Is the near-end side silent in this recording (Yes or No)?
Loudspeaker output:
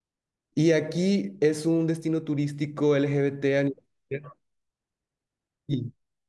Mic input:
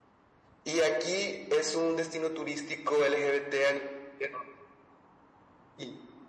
Yes